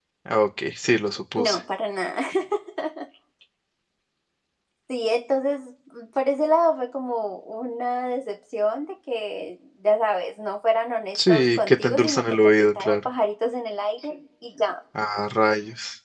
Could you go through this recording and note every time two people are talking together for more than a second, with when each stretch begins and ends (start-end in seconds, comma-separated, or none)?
11.2-13.1